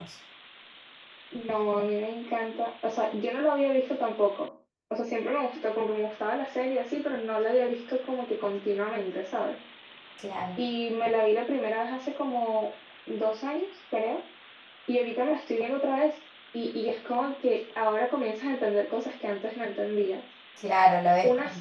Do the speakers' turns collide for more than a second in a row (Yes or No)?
No